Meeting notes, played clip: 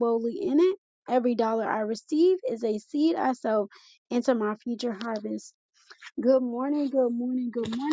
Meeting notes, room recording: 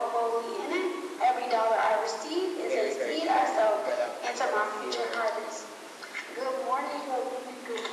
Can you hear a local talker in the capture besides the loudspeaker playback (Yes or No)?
Yes